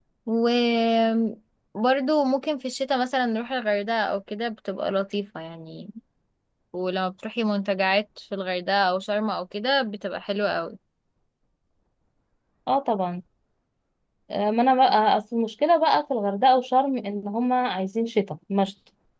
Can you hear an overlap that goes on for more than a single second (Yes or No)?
No